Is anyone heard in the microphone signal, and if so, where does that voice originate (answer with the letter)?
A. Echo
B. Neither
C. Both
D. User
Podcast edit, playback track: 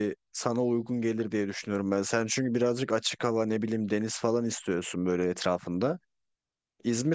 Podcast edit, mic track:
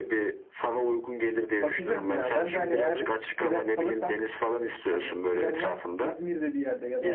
C